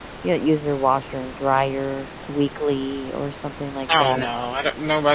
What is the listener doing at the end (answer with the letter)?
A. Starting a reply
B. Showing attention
A